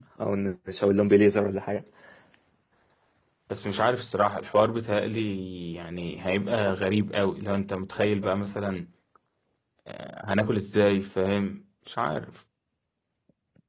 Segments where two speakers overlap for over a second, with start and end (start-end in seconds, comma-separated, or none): none